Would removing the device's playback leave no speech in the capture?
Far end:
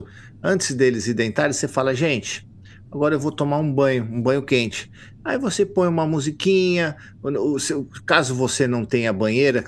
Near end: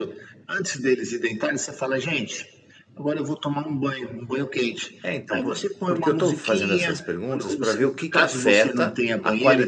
No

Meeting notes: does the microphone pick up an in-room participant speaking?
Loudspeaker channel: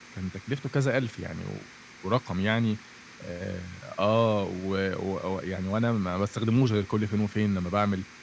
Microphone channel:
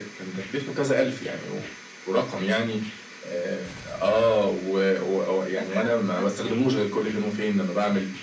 Yes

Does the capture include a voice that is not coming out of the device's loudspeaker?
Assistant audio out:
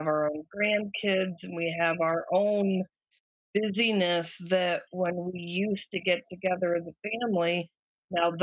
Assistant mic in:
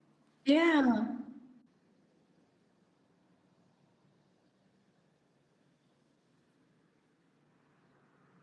Yes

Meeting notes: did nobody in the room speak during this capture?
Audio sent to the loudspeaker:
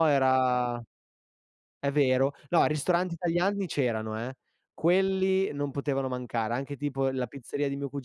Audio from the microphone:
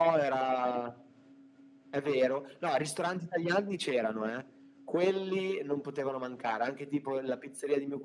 Yes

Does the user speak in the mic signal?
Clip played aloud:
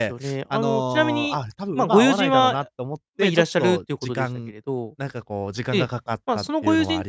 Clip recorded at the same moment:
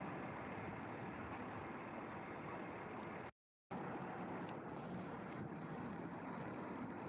No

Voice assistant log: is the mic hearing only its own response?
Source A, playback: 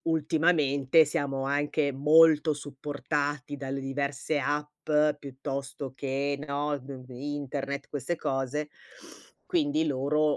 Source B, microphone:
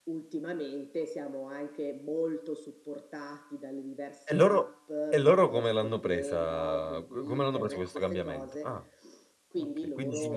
No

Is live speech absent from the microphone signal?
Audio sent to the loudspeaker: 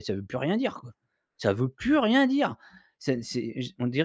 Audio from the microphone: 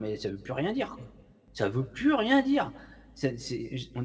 Yes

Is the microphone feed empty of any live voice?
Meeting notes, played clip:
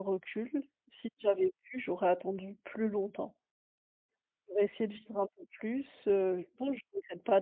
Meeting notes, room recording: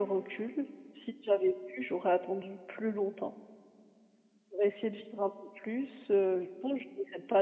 Yes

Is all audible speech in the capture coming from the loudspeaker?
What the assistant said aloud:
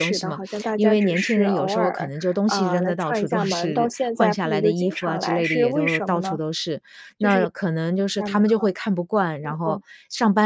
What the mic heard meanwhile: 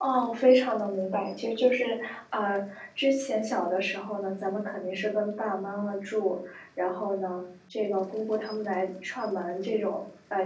No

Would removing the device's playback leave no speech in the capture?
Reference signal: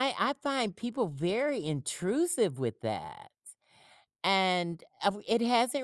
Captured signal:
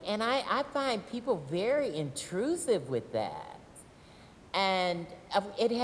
Yes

